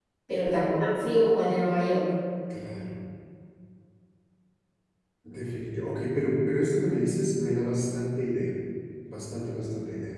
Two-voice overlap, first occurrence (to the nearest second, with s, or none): none